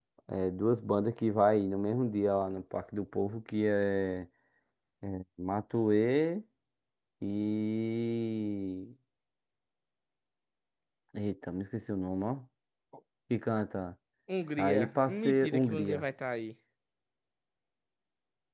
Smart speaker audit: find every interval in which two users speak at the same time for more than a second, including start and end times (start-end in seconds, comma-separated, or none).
14.6-16.0